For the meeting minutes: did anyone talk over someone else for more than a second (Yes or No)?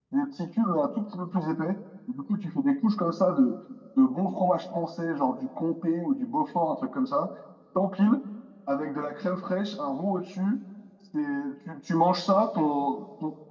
No